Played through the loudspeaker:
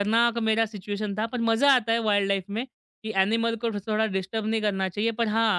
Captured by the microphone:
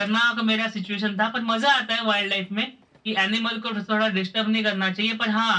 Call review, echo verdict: present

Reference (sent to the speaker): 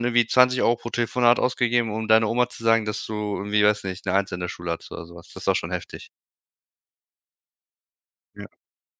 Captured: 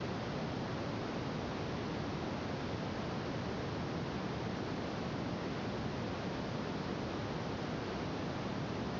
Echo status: none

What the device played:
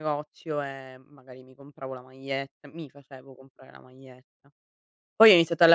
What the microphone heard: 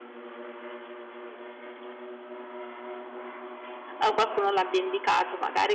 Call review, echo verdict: none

